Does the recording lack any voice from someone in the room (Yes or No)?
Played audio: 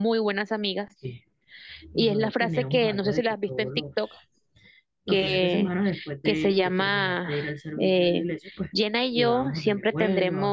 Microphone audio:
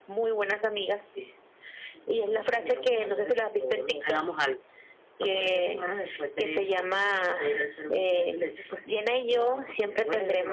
No